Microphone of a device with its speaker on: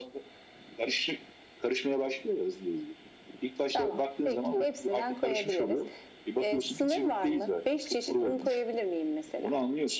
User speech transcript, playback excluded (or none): none